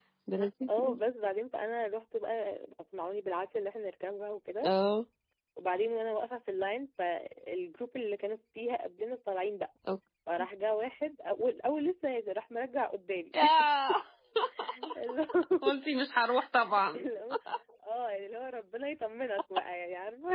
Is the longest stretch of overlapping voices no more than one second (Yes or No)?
Yes